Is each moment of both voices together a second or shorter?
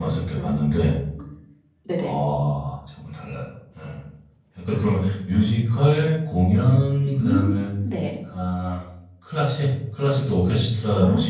Yes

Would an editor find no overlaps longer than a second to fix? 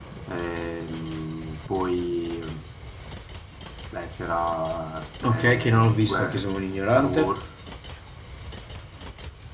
No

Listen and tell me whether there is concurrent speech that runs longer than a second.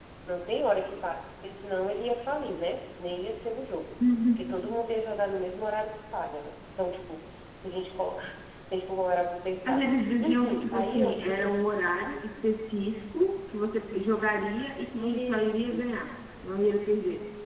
Yes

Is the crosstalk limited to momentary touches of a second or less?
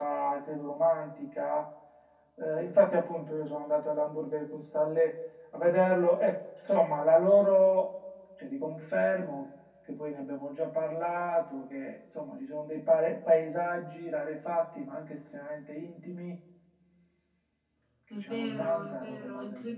No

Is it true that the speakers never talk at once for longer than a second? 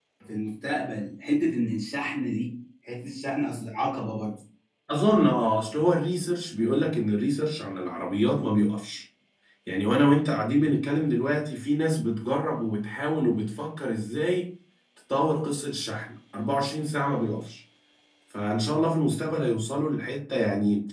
Yes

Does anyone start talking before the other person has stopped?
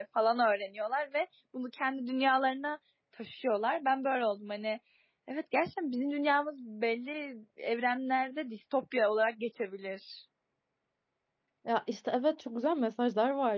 No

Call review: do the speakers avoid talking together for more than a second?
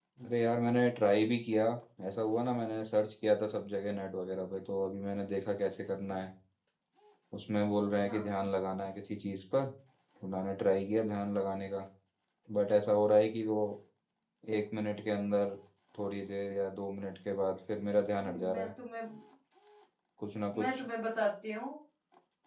Yes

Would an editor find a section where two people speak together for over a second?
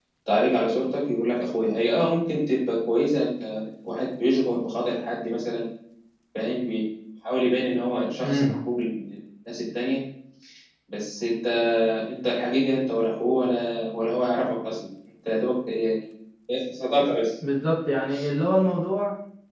No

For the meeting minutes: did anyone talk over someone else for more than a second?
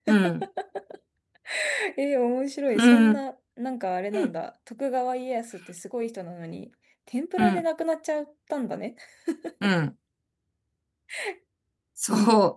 No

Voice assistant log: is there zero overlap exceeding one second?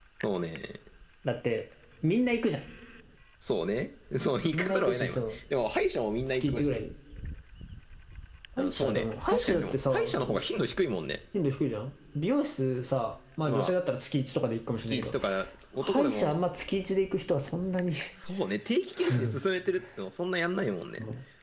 No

